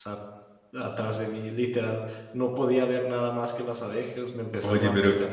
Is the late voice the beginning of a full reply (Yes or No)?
Yes